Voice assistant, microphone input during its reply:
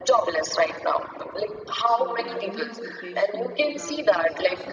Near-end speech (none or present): present